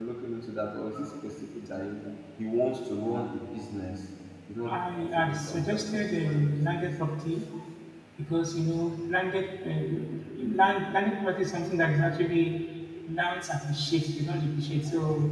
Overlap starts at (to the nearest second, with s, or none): 5 s